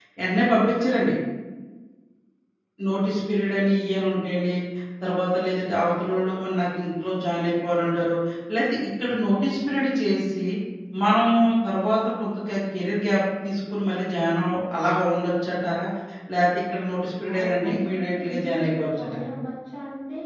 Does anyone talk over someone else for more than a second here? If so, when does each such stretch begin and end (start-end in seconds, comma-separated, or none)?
17.3-19.3